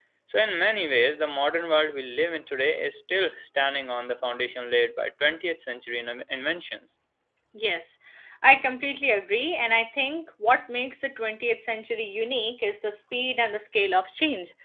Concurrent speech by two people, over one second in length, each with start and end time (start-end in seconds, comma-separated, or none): none